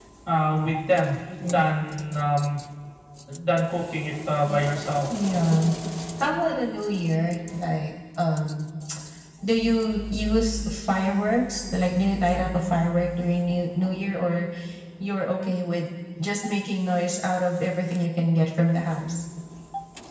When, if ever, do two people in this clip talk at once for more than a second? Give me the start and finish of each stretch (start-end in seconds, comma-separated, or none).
none